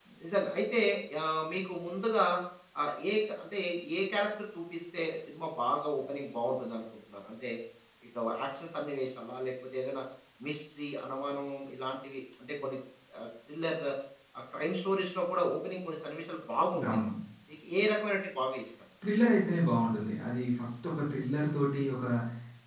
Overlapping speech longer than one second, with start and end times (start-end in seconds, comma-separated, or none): none